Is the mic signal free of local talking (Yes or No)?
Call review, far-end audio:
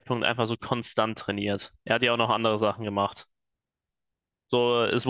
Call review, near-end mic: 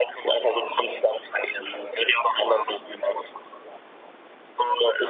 Yes